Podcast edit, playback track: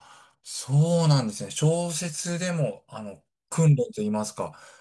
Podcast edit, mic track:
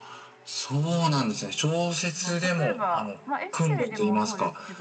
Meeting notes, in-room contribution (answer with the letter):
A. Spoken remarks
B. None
A